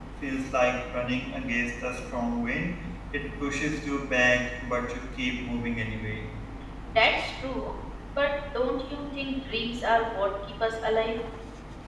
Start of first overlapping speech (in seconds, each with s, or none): none